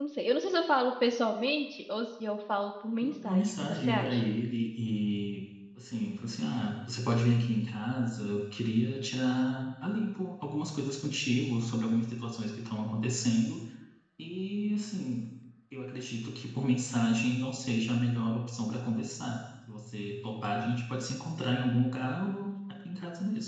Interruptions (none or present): present